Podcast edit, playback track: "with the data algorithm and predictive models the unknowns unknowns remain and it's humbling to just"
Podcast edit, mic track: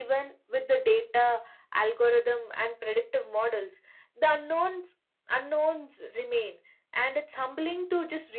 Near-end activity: none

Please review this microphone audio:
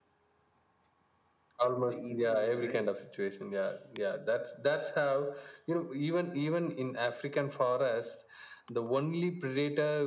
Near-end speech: present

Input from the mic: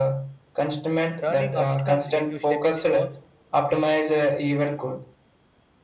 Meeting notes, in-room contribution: present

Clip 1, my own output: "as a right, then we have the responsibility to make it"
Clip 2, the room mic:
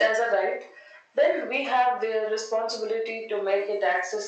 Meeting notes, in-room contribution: none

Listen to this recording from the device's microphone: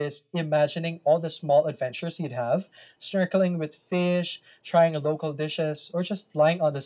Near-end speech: none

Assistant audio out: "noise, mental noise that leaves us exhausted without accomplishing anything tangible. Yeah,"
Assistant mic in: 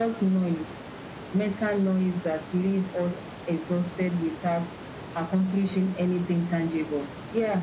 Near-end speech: none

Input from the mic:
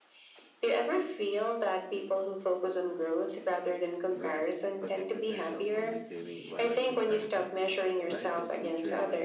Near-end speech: present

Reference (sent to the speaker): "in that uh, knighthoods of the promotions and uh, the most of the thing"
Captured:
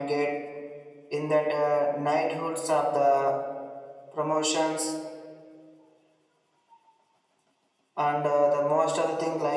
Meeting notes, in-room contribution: none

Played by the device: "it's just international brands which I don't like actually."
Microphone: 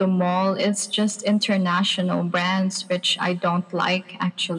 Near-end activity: none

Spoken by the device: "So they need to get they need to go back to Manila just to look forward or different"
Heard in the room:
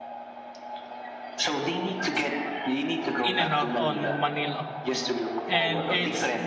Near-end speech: present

